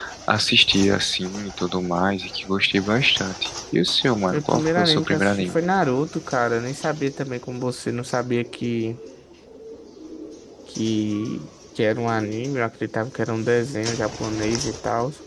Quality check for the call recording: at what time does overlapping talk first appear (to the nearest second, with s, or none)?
4 s